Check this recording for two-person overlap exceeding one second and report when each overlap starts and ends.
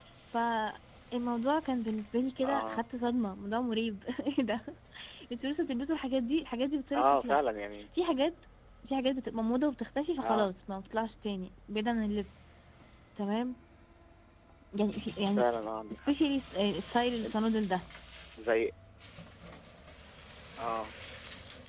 none

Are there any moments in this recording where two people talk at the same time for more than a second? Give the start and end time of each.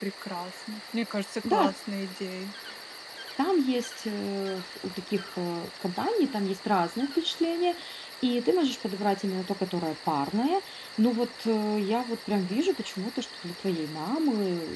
none

